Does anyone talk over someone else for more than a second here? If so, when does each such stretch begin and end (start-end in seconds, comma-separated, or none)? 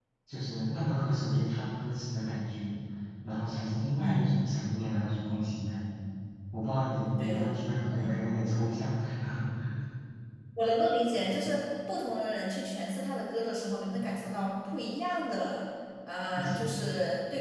none